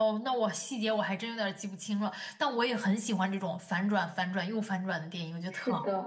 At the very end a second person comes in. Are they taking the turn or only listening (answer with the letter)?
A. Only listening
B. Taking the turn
B